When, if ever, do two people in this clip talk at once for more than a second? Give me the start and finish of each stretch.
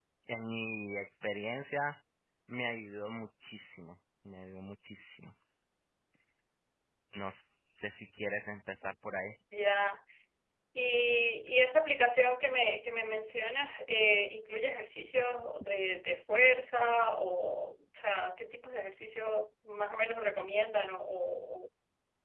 none

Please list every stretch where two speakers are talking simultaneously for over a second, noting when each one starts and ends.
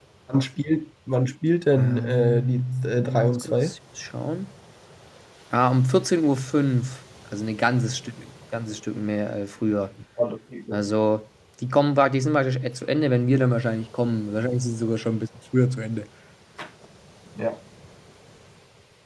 1.8-3.7

